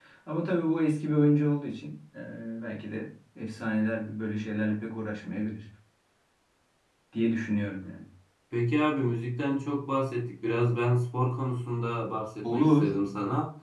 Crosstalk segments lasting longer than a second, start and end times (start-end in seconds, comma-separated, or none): none